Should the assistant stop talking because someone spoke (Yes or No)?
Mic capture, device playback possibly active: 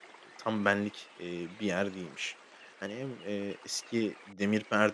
Yes